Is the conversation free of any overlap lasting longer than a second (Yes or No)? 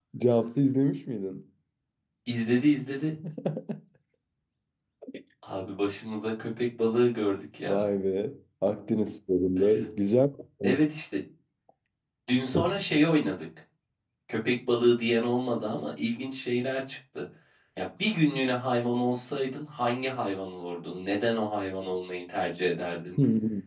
Yes